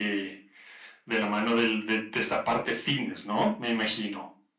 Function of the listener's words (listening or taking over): taking over